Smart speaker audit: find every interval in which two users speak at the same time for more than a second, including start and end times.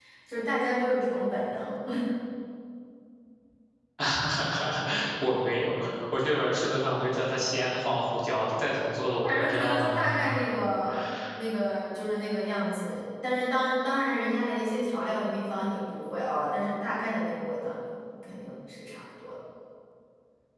9.2-10.6

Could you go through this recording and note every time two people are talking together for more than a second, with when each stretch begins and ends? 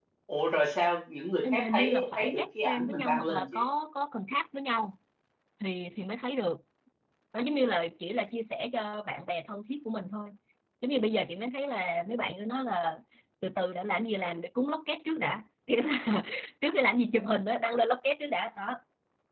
1.5-3.6

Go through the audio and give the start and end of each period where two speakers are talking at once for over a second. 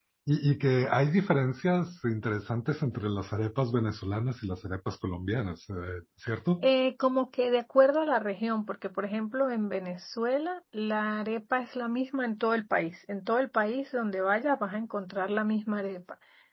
none

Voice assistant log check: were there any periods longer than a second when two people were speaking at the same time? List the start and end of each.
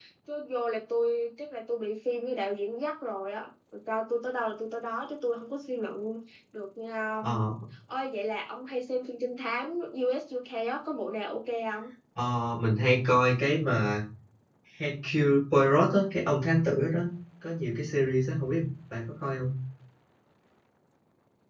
none

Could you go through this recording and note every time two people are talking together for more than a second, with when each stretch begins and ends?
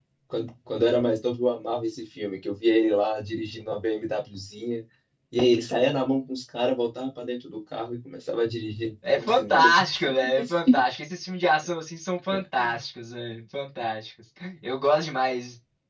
9.2-10.8

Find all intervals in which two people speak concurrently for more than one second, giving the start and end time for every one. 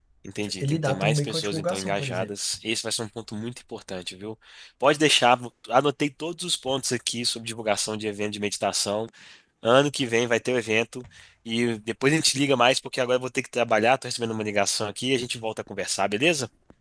0.6-2.3

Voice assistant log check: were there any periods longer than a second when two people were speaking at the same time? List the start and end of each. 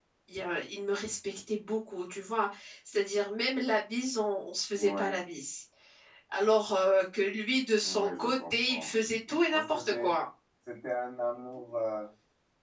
7.8-10.1

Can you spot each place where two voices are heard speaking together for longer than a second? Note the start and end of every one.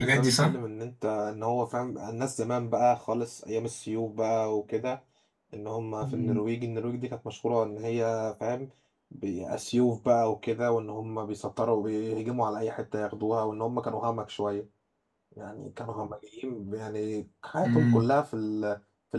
none

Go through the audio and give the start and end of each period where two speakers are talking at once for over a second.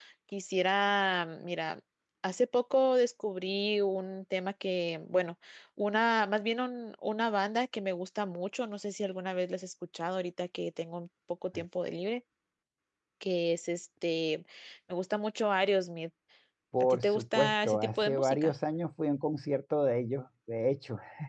16.8-18.5

